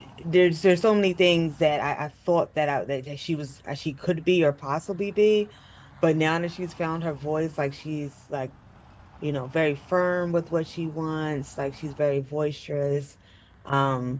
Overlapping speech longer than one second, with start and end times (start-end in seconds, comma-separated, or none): none